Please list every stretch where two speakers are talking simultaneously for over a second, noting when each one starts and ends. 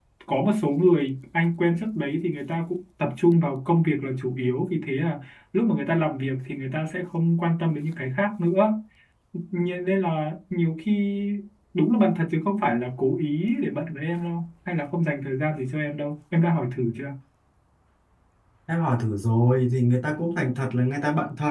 none

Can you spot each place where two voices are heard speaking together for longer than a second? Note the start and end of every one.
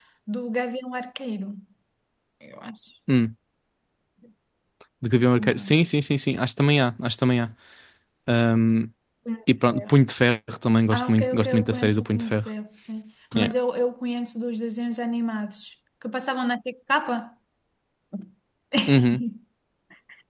10.9-12.4

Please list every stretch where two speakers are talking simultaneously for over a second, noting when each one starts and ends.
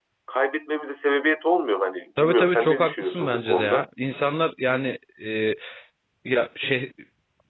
2.2-3.8

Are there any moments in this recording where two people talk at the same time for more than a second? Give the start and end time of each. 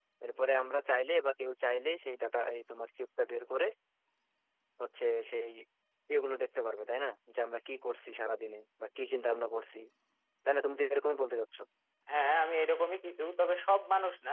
none

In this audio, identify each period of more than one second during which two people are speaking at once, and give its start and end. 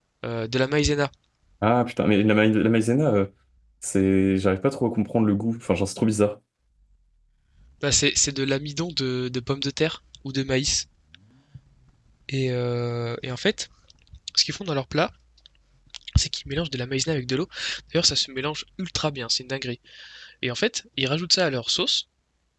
none

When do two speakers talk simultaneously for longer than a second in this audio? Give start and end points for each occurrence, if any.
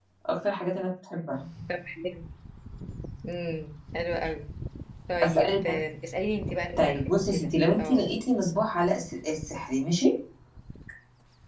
6.8-8.1

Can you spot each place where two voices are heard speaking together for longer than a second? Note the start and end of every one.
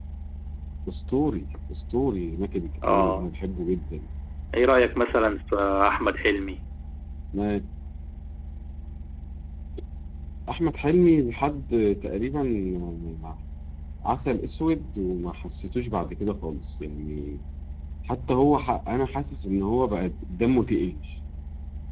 none

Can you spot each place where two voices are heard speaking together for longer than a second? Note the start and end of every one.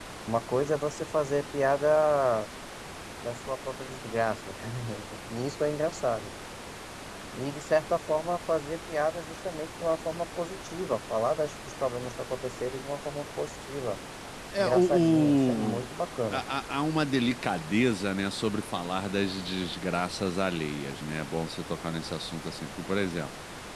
14.6-15.8

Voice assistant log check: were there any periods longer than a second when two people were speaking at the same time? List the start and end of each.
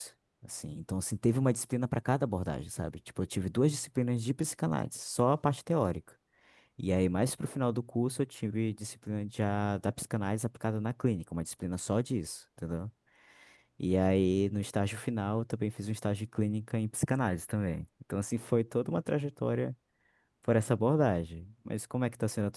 none

